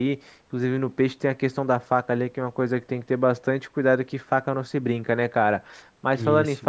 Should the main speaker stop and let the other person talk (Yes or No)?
No